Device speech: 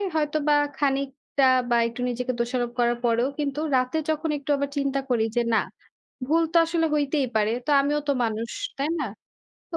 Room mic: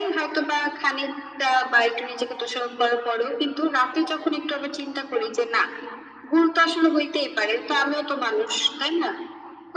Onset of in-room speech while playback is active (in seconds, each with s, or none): none